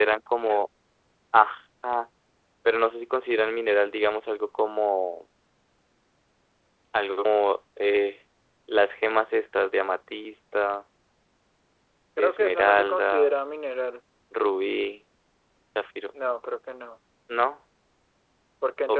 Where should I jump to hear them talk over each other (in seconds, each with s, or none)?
12.2 s